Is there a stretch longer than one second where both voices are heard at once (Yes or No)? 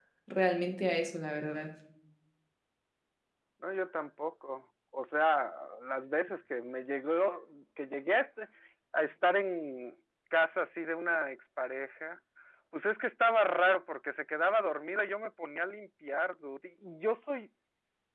No